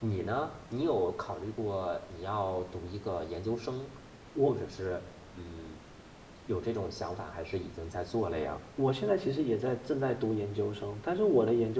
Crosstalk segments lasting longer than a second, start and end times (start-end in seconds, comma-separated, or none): none